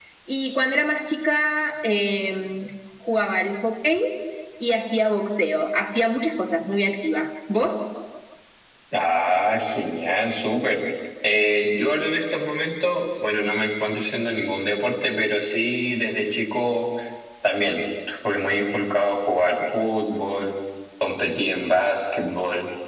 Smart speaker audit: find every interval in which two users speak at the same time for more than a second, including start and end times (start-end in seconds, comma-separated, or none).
none